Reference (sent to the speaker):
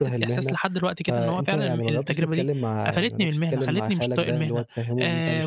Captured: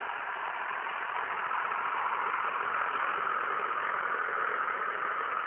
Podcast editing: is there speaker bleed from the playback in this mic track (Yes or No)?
No